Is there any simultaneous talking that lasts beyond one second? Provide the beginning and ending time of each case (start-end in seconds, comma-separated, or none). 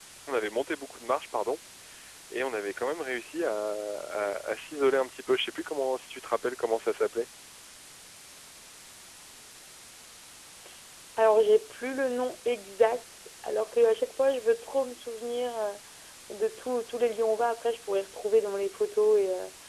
none